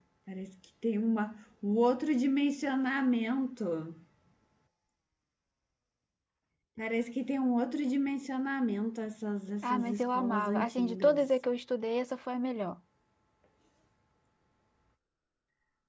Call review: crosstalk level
present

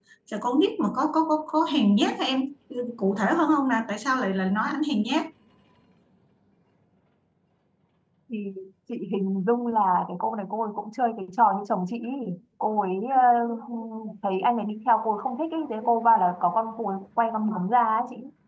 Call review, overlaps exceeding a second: none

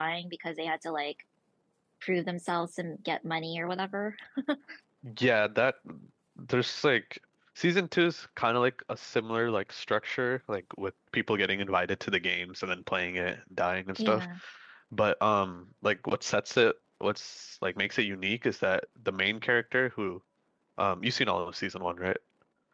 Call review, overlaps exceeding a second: none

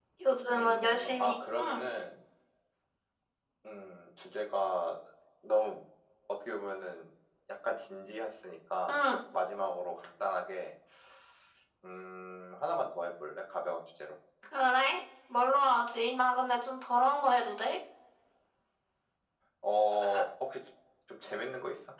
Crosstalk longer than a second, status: present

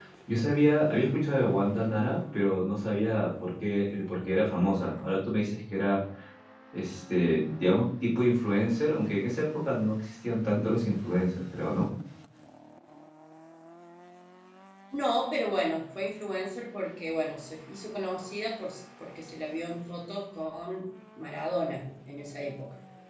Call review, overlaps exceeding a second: none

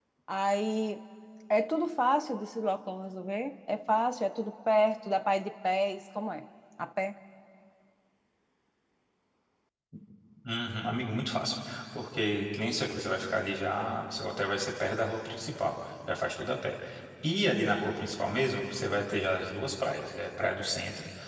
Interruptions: none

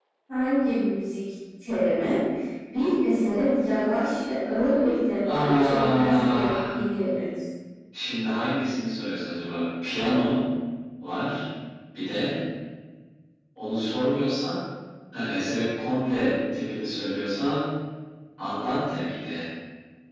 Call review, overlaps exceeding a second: present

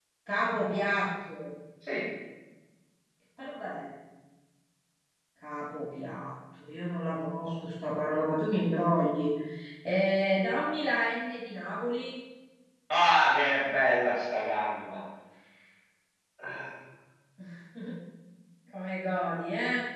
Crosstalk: none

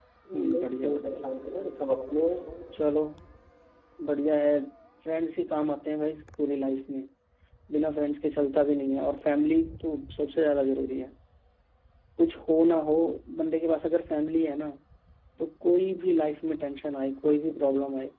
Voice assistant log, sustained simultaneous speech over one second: present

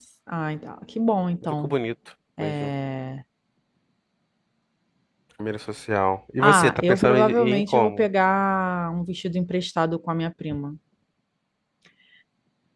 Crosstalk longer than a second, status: present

